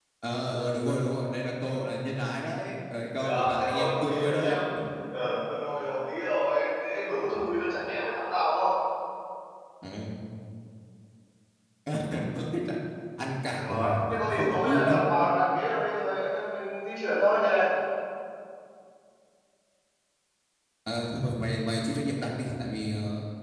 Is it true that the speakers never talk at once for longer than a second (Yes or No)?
No